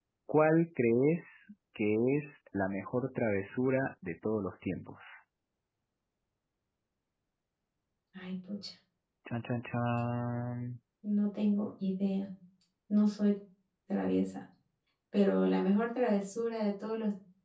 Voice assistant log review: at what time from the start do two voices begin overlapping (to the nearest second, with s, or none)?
none